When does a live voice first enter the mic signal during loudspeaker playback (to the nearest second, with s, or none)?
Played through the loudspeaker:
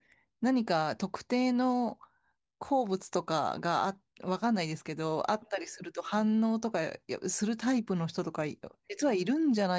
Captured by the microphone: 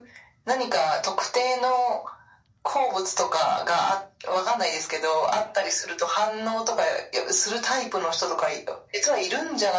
none